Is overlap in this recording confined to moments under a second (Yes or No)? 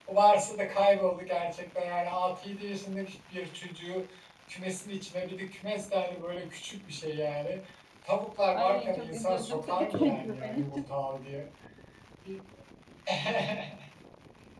No